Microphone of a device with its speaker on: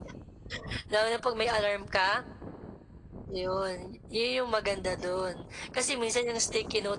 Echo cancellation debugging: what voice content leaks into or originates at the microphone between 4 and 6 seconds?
echo only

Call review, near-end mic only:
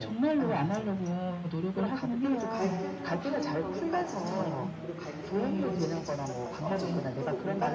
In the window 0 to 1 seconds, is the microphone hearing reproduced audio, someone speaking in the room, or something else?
echo only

